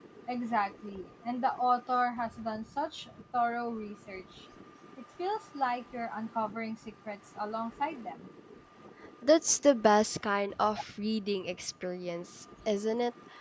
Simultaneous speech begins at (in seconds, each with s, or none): none